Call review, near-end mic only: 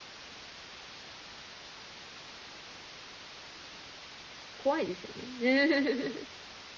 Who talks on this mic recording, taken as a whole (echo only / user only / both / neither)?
user only